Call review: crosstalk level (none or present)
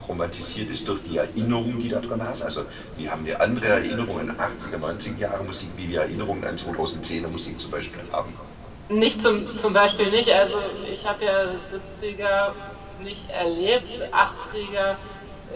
none